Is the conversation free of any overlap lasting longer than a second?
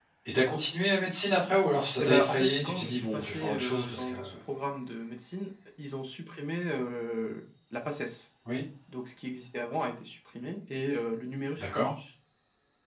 No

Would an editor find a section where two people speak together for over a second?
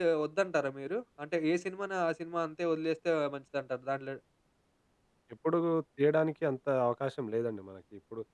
No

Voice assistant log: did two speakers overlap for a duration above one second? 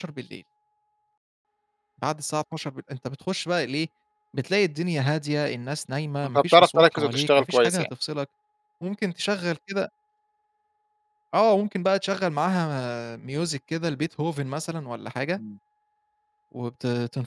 Yes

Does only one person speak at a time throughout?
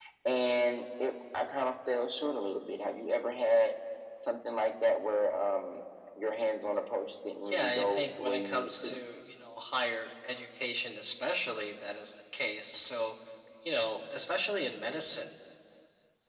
No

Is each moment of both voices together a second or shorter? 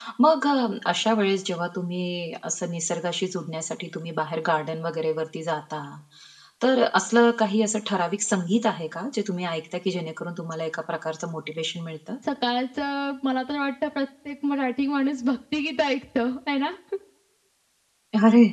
Yes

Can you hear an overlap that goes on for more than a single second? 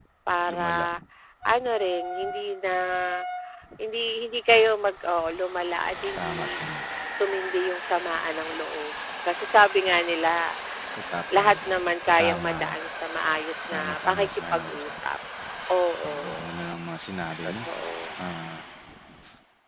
Yes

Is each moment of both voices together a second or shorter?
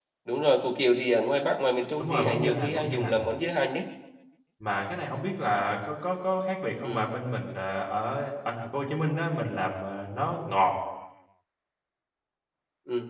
No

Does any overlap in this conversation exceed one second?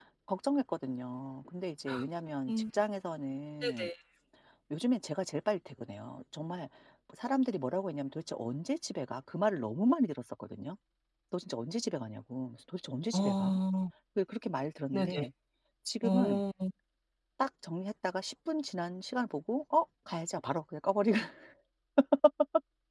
No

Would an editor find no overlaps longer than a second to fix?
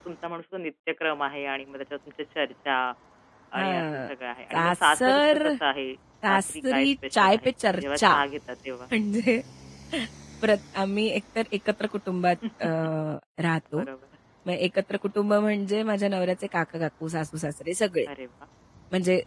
No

